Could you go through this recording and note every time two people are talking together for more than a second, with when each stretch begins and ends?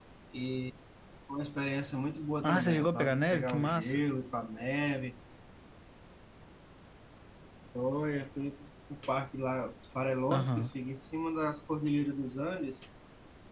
2.4-4.0

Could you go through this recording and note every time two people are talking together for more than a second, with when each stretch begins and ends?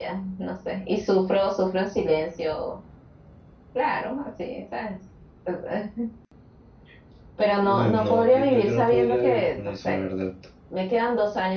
7.6-10.0

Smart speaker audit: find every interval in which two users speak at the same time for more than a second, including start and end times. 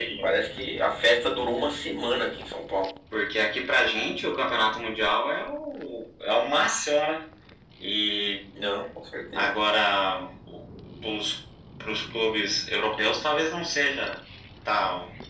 none

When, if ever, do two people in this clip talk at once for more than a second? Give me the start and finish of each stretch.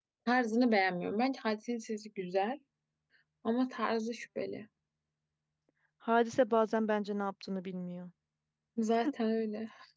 none

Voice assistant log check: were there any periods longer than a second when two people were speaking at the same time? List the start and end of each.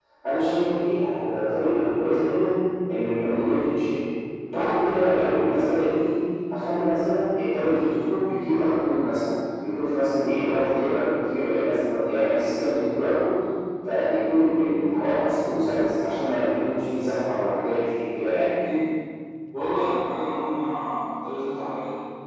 none

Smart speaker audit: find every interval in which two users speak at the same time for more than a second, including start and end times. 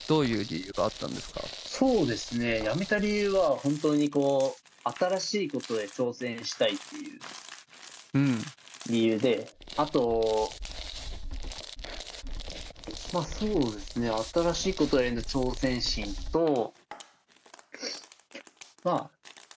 none

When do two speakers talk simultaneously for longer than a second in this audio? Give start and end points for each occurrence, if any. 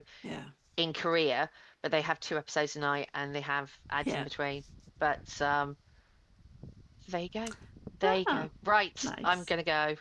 none

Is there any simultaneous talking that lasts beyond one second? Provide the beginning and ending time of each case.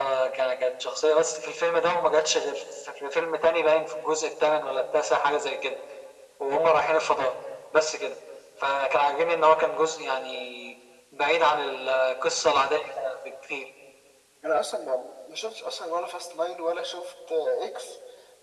none

